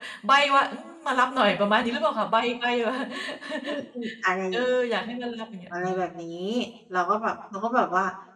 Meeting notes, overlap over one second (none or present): none